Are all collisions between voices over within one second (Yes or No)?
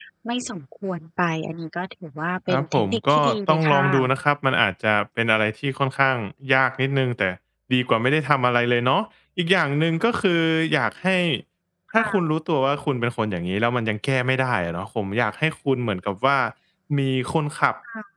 No